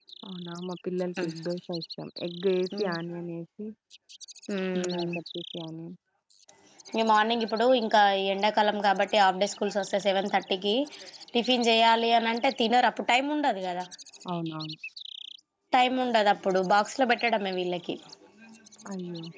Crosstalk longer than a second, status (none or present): none